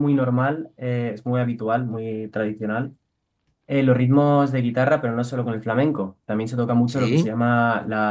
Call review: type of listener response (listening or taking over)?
listening